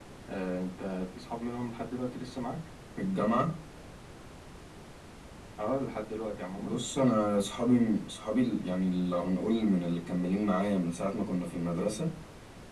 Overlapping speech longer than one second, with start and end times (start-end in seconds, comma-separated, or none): none